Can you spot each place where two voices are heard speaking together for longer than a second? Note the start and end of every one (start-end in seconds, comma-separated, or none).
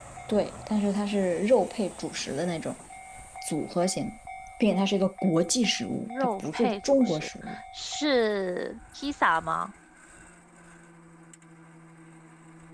6.0-7.3